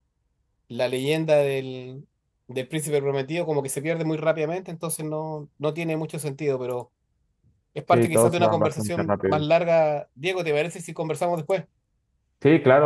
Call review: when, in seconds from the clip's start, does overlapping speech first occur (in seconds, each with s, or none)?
7.9 s